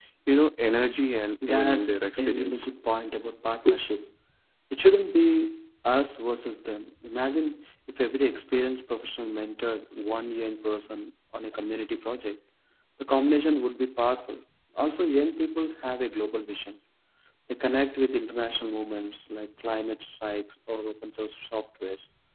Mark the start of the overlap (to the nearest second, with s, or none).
1 s